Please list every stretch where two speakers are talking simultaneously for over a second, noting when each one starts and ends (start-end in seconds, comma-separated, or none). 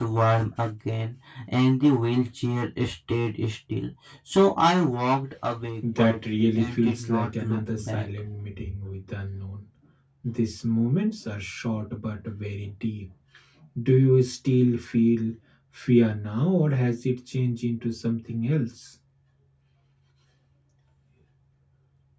6.0-8.0